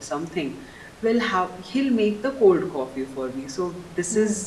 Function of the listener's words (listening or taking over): listening